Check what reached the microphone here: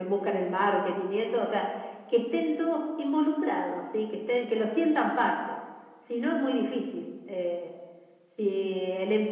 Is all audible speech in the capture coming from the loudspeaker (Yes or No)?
Yes